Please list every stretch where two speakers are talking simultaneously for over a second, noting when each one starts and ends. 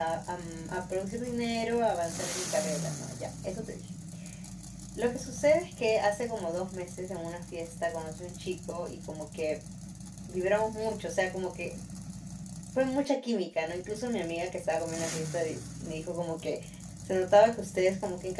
none

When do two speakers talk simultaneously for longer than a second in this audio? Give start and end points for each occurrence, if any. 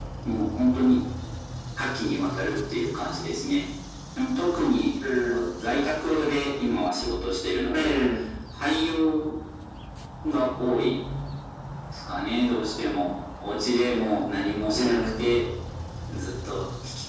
none

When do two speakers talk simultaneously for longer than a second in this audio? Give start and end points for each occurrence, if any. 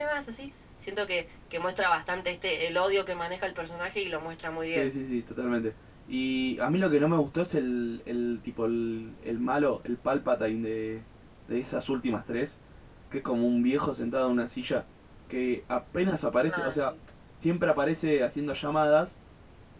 none

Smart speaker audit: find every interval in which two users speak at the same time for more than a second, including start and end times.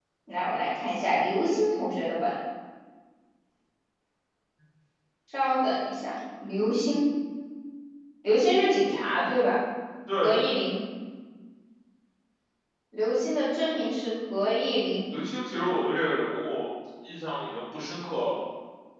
none

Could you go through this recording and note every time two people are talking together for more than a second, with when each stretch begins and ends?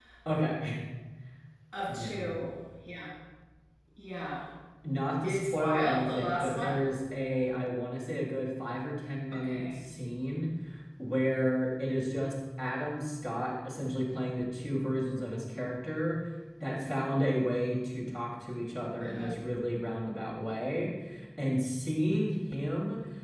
5.2-6.8

